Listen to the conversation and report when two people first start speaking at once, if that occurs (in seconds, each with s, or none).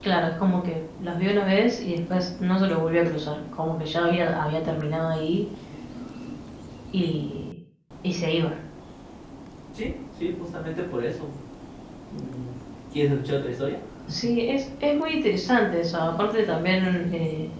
none